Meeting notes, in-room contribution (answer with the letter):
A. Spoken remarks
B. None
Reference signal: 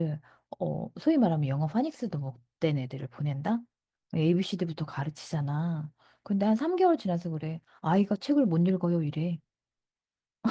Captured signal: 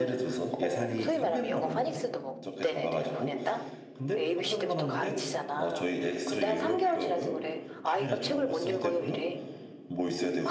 A